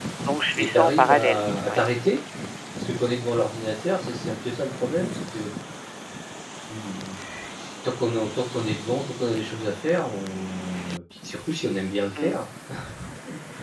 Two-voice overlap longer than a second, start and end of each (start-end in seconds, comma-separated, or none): 0.6-1.8